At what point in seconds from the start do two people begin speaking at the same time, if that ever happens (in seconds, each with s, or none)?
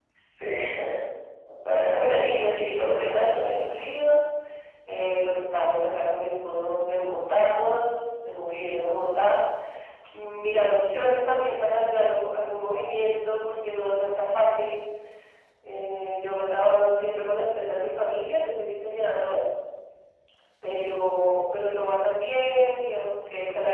1.9 s